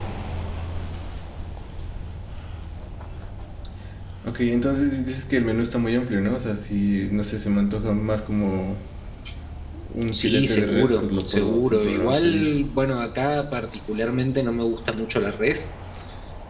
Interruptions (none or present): present